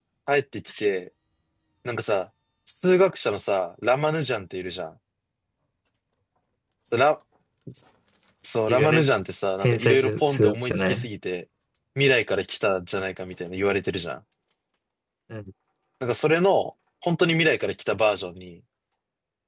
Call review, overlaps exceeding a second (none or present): present